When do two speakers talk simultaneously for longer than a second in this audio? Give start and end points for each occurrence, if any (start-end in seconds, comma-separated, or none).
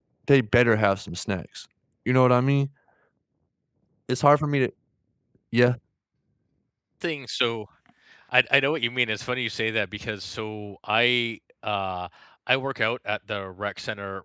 none